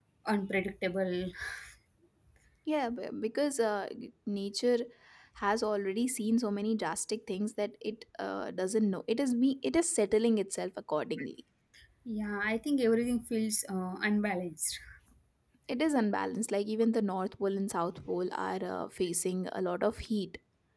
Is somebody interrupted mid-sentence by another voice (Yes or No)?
No